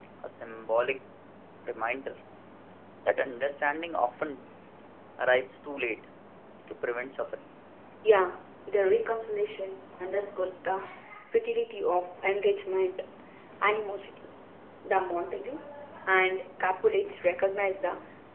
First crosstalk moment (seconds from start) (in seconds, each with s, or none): none